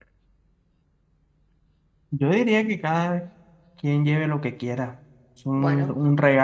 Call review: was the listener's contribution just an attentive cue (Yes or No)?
Yes